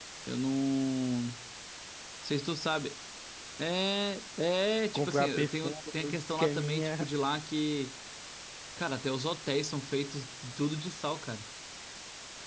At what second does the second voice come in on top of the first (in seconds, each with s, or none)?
4.9 s